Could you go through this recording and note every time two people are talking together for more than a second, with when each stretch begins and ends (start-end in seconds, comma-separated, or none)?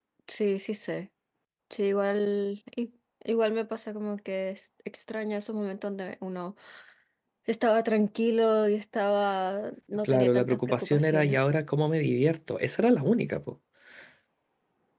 10.0-11.4